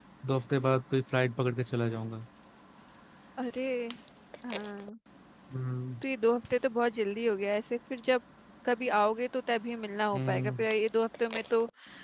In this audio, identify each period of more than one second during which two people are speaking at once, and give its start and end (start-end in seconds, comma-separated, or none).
none